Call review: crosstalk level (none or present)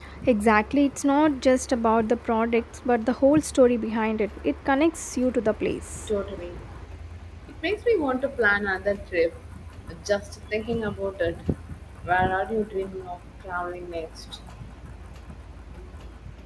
none